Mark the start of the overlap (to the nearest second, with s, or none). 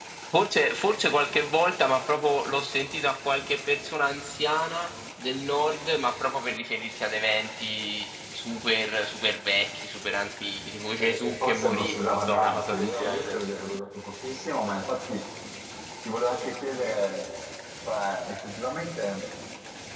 11 s